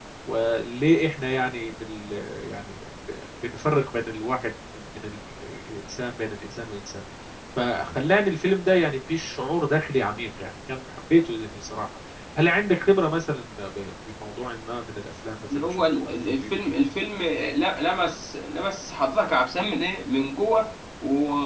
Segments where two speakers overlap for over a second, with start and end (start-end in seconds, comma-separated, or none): 15.6-16.8